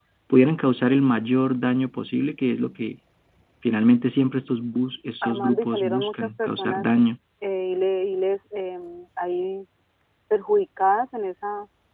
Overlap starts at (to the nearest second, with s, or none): 5 s